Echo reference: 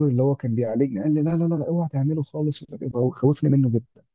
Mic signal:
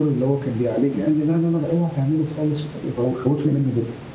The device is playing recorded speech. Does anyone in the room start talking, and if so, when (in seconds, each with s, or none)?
none